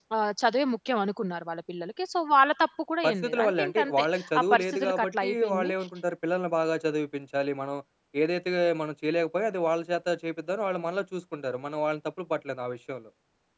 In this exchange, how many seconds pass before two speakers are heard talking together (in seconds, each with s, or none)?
3.0 s